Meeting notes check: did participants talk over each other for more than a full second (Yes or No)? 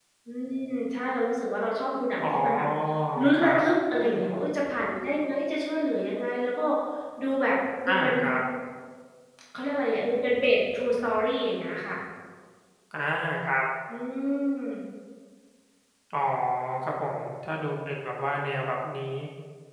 No